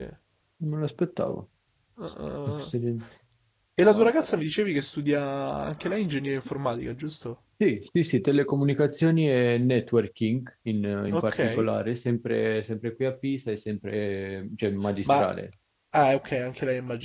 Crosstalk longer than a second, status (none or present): none